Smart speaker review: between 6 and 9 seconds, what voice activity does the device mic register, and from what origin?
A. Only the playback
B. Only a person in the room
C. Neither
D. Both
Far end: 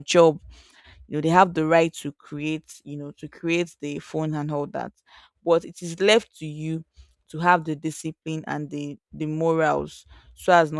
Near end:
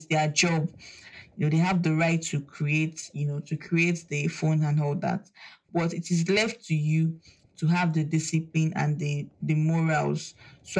A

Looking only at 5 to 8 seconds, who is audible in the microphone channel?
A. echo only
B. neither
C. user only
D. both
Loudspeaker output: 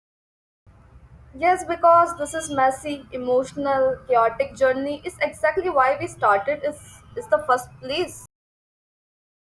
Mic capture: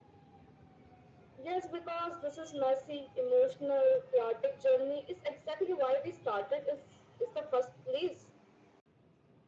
A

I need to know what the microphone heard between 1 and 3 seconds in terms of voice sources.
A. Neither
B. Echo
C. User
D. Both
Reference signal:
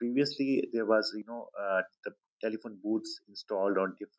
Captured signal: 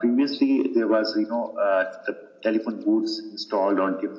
B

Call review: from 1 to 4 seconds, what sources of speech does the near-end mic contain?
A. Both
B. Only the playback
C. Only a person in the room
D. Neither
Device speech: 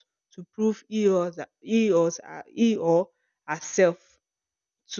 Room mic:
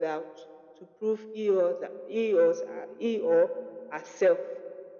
B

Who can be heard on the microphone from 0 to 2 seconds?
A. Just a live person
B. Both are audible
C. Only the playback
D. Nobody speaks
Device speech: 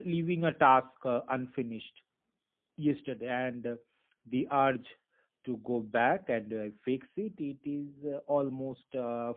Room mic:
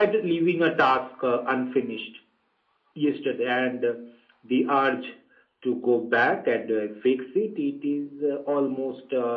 C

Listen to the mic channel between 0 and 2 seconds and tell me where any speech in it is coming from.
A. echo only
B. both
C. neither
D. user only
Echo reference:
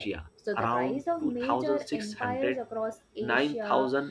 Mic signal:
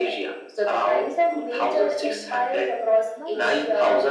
A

